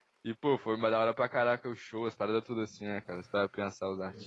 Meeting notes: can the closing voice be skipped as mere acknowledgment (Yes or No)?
No